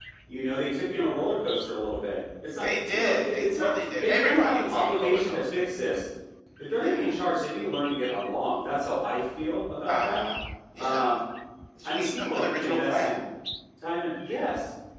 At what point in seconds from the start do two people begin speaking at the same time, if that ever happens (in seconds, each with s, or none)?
2.6 s